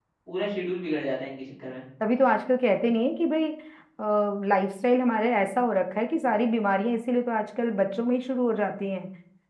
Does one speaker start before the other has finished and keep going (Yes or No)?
No